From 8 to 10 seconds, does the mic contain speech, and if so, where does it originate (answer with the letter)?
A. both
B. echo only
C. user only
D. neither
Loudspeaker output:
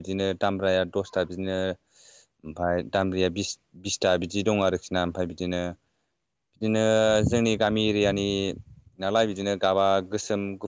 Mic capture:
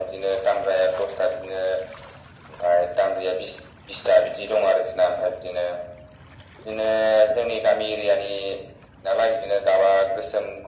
B